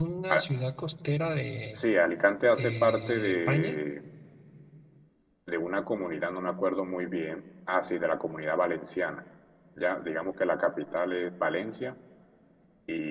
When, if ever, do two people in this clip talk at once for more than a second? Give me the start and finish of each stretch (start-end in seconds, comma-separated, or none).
2.6-3.8